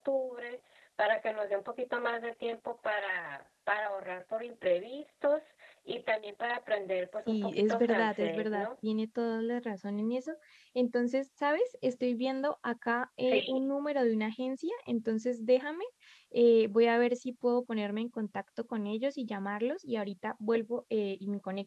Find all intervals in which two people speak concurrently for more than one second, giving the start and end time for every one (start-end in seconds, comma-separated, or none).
7.3-8.7